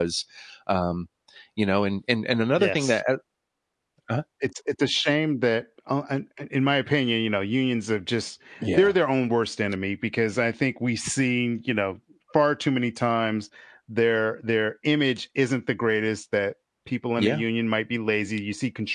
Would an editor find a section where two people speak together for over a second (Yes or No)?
No